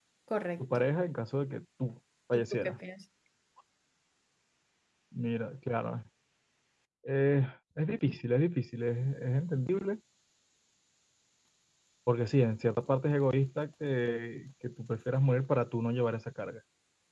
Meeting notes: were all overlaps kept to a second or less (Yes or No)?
Yes